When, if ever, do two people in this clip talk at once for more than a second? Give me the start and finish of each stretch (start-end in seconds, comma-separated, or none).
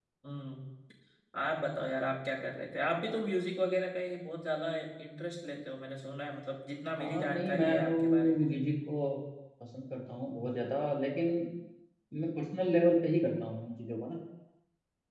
7.0-8.5